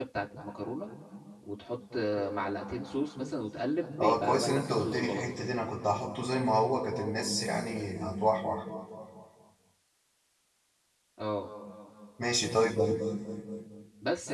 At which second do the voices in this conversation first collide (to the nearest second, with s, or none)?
4 s